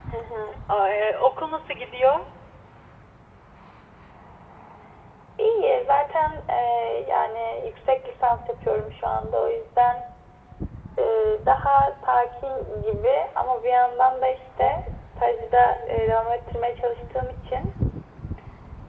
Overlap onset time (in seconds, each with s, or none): none